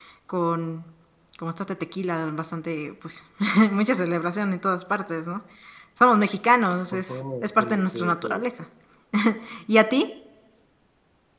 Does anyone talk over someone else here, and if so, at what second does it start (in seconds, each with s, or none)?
6.9 s